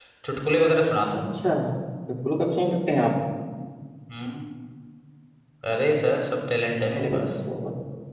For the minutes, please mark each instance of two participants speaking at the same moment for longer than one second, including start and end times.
none

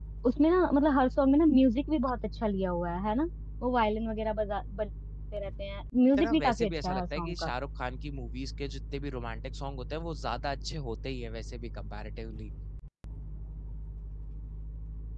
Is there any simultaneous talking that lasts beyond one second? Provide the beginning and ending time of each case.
6.2-7.5

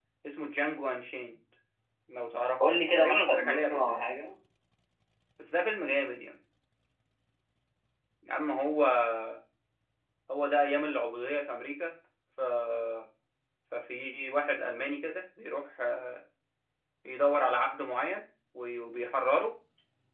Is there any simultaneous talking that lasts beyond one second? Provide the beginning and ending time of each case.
2.6-4.0

